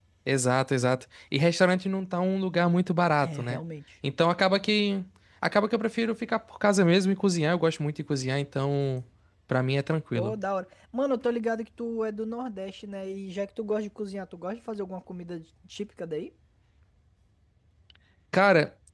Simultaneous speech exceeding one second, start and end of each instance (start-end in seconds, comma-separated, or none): none